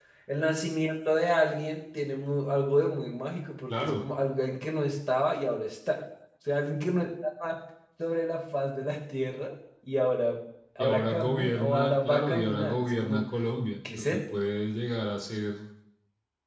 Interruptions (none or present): present